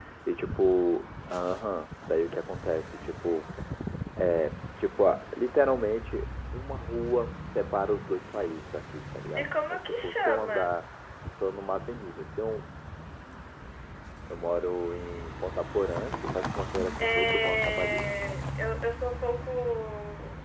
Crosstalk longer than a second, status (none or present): present